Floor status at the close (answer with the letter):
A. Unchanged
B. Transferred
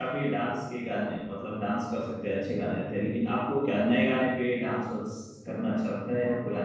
B